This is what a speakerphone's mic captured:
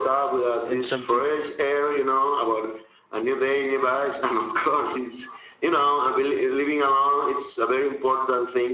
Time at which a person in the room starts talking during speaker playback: 0.6 s

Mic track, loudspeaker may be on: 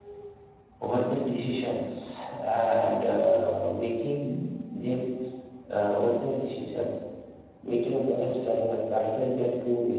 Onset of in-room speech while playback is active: none

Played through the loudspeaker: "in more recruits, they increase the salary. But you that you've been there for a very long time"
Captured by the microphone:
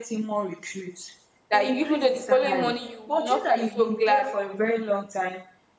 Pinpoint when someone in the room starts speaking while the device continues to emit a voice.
1.5 s

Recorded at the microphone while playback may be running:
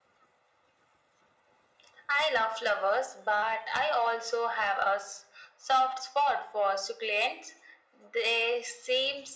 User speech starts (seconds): none

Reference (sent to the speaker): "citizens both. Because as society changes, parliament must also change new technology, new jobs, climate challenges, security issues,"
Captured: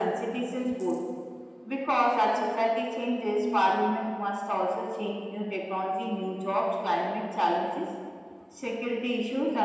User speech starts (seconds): none

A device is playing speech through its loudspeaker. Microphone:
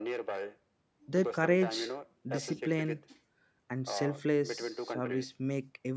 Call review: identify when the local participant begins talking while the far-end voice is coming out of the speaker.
1.1 s

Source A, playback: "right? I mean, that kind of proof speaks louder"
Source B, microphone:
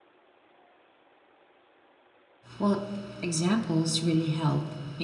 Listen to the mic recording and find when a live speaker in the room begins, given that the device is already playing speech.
2.6 s

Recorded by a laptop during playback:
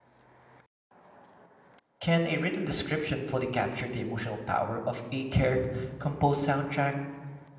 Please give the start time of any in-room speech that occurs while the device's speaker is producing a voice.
2.0 s

